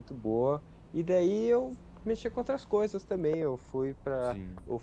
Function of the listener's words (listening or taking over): listening